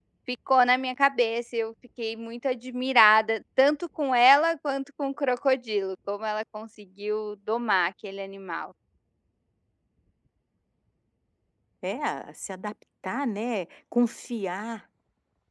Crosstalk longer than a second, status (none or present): none